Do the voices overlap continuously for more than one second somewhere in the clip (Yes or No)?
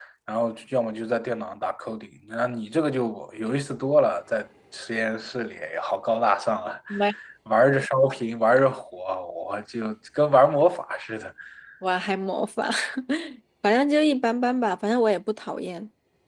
No